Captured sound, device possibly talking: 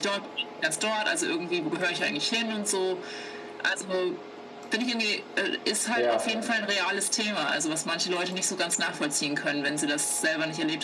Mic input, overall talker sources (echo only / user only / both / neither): both